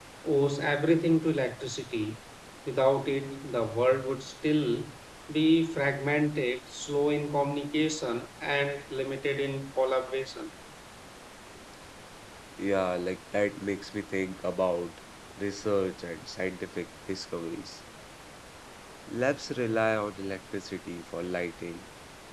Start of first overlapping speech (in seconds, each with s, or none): none